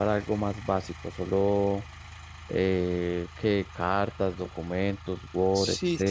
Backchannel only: No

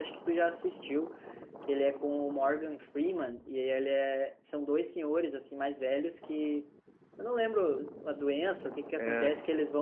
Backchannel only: Yes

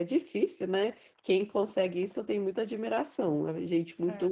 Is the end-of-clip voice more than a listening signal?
Yes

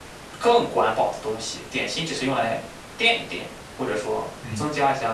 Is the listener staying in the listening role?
No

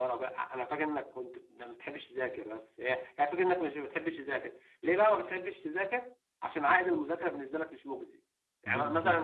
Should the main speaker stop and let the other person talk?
No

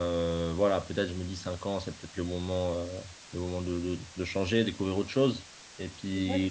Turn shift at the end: No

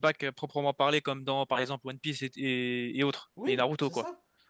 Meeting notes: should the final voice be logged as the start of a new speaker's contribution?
Yes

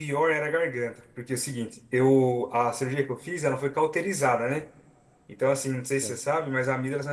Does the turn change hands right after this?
No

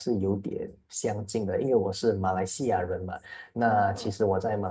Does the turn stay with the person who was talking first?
Yes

